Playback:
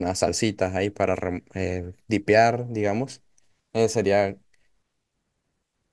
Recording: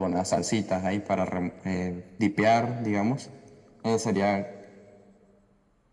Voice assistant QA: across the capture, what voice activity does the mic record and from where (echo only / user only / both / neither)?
echo only